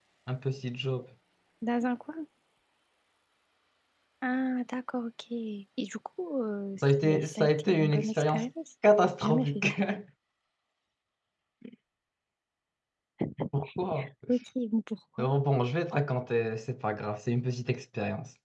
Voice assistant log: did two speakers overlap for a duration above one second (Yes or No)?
Yes